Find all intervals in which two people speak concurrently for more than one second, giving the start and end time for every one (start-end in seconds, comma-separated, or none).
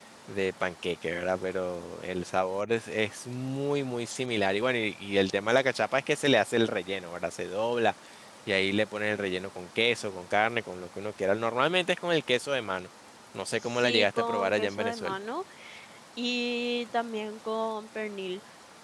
13.6-15.2